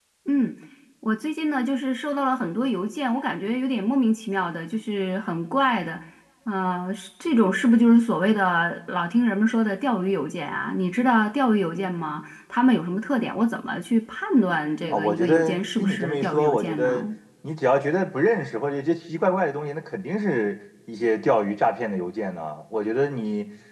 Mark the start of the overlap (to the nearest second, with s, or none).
15 s